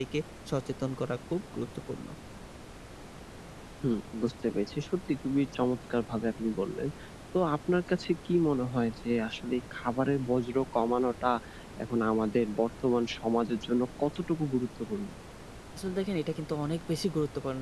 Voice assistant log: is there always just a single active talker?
Yes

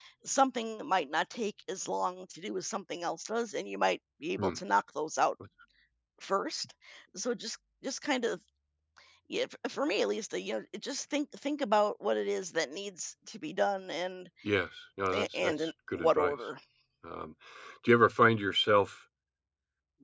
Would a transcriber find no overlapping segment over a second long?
No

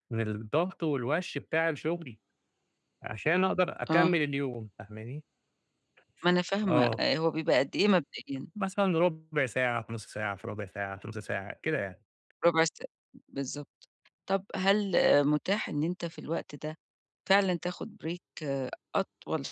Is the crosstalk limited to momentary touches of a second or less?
Yes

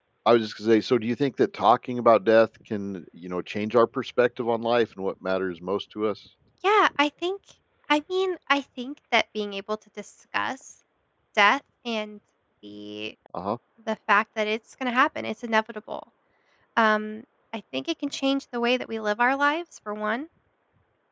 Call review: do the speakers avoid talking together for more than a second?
Yes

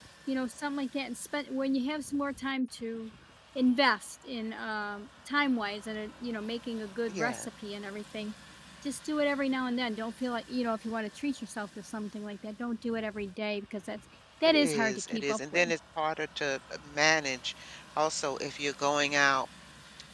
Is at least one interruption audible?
Yes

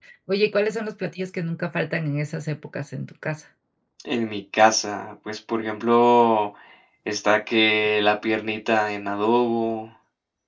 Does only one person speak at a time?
Yes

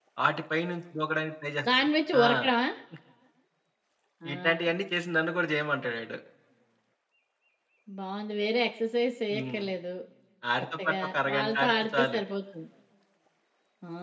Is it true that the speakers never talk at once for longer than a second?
No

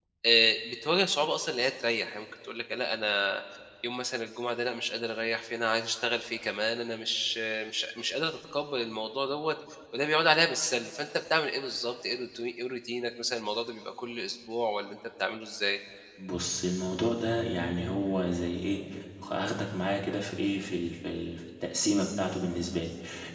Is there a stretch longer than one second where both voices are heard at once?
No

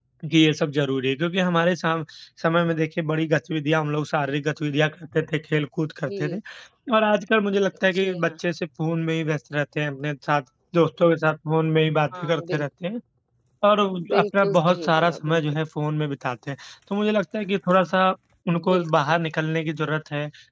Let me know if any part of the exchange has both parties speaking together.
Yes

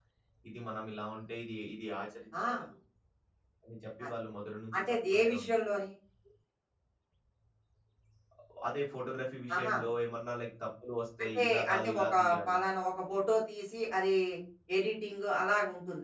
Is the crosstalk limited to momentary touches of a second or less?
No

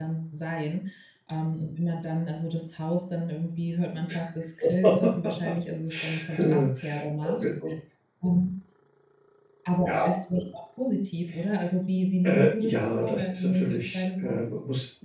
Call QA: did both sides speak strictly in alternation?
No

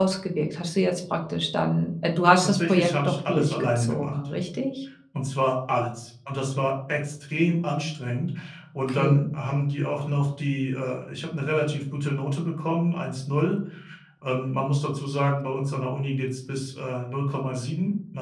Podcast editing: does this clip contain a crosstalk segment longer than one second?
Yes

